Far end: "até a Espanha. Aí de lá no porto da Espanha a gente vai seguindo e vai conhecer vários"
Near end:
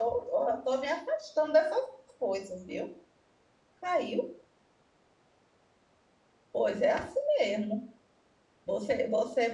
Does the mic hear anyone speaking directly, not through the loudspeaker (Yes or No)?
Yes